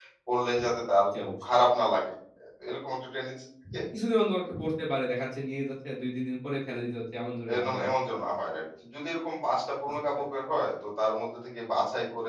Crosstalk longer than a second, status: none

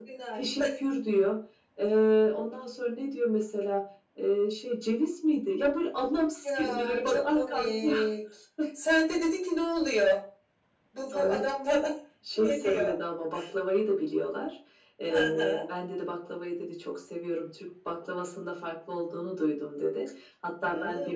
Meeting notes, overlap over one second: present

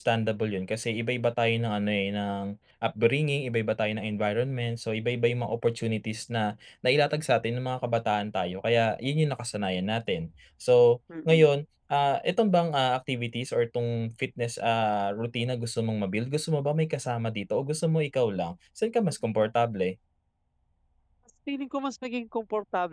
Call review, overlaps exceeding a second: none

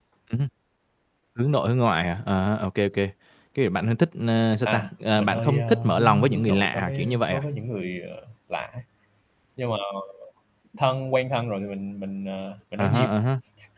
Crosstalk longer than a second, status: present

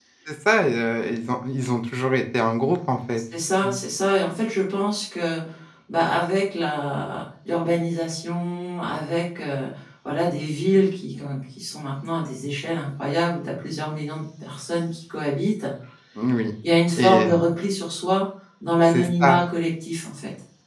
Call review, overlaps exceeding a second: none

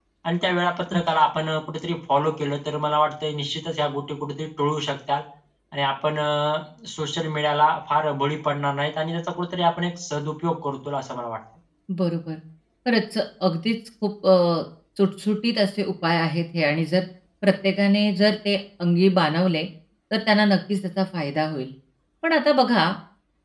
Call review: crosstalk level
none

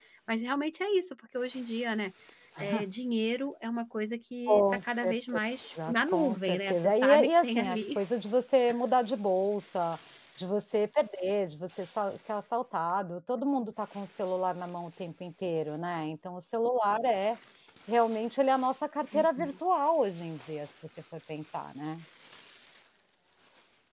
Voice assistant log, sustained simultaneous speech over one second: present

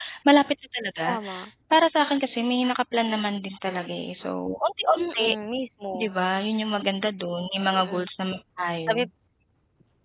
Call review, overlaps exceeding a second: none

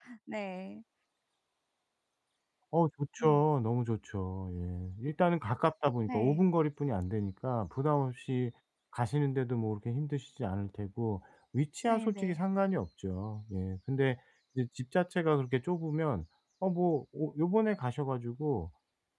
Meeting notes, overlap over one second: none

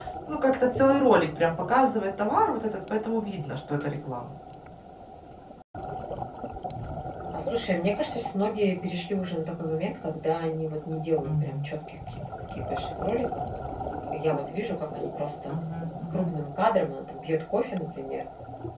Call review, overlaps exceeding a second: none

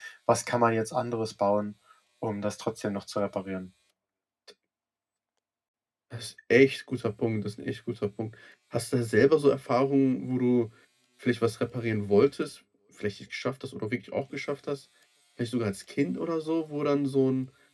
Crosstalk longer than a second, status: none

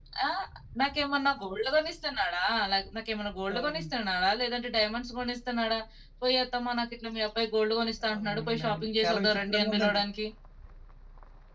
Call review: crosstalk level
present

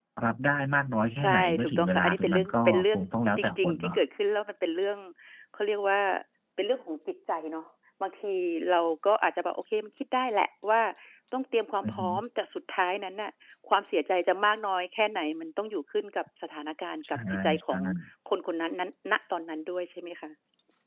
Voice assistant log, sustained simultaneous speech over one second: present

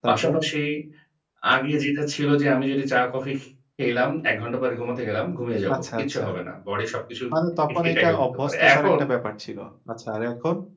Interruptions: present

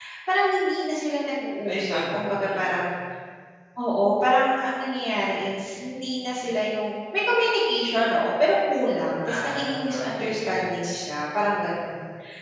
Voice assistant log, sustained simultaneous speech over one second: present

